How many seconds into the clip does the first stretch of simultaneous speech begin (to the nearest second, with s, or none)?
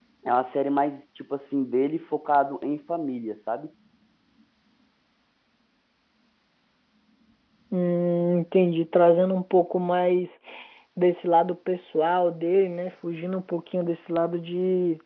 none